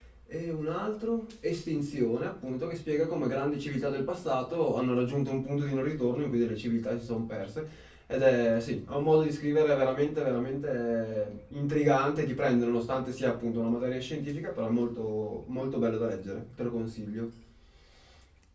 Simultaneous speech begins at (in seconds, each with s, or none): none